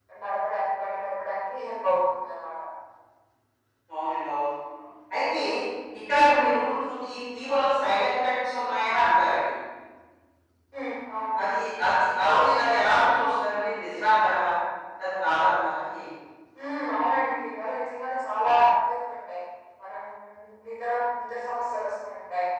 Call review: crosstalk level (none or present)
none